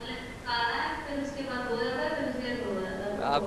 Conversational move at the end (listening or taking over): taking over